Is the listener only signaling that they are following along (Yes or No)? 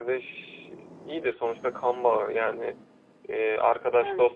Yes